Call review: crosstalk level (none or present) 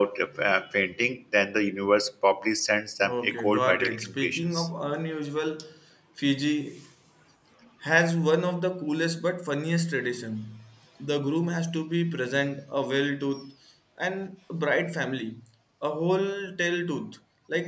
present